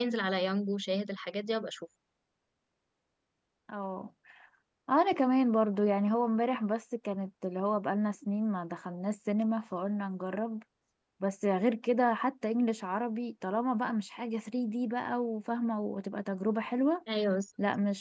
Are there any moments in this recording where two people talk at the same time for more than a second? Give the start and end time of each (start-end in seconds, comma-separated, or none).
none